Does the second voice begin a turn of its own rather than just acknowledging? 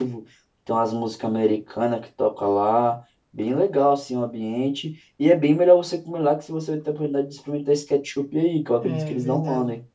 Yes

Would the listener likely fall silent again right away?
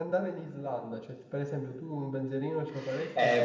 No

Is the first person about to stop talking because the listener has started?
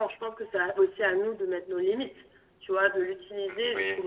No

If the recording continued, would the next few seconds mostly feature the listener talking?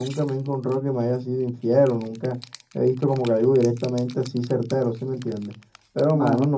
No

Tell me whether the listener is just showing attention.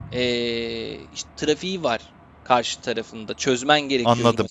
No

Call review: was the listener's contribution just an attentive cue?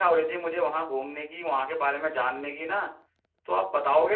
No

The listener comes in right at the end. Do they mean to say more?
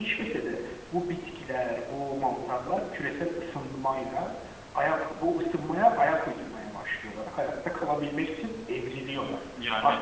No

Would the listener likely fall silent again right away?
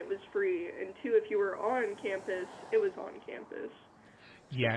No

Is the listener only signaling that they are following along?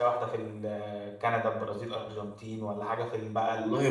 Yes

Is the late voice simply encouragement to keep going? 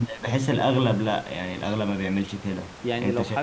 No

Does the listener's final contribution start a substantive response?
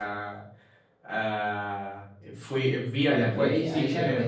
Yes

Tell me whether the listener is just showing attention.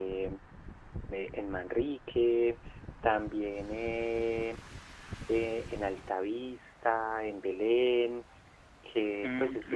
No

